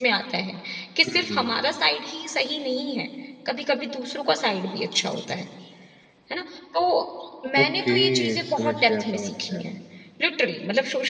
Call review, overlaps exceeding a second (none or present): present